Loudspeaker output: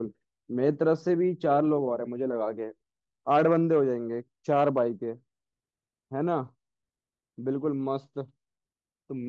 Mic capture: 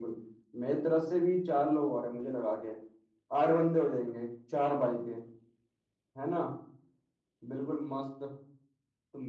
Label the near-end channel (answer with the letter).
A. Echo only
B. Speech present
A